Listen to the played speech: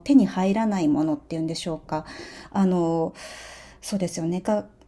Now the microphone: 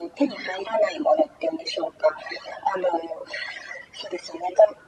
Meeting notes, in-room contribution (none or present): none